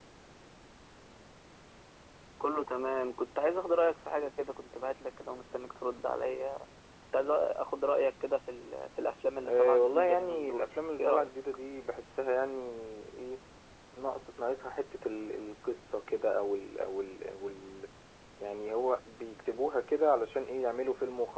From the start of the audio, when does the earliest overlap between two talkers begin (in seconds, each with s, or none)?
9.4 s